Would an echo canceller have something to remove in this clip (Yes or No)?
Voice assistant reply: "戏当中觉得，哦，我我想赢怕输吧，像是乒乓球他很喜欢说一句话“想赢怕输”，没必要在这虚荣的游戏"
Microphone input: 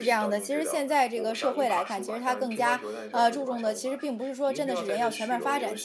Yes